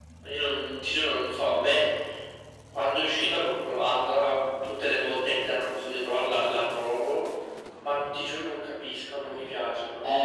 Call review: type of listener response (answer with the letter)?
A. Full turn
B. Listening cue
A